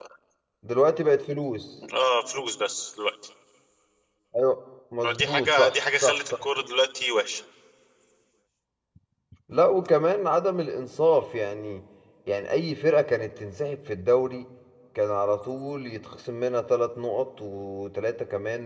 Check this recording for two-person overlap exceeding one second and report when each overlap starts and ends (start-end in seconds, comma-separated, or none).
5.0-6.2